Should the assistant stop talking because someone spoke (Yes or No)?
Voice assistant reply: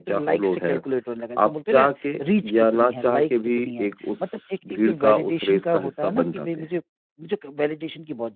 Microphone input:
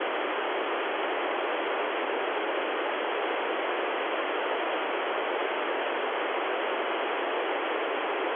No